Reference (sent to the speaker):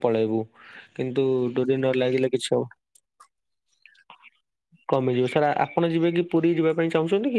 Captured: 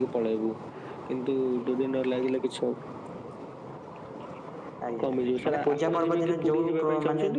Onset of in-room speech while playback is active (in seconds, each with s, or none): 4.9 s